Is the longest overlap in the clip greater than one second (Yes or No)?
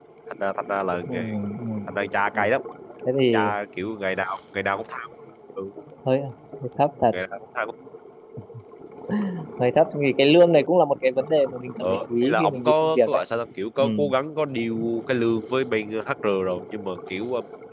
Yes